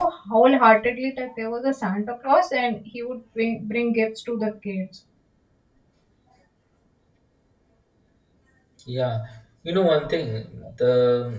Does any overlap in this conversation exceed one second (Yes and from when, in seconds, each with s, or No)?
No